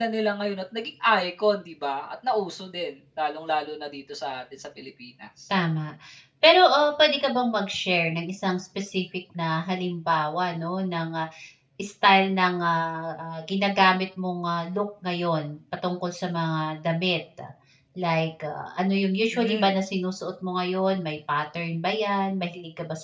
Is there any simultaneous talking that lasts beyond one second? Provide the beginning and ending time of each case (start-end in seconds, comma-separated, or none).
none